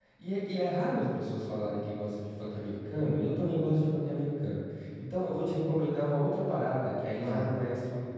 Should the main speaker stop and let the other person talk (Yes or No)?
No